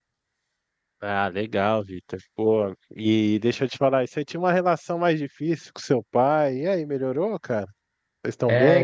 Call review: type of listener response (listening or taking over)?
taking over